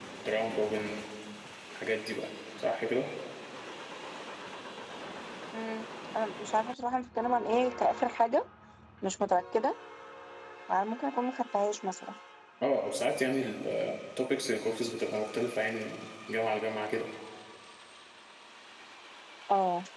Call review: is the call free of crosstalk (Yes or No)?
Yes